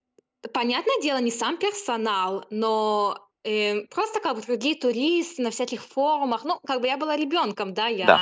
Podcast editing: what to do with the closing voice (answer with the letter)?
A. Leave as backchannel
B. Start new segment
B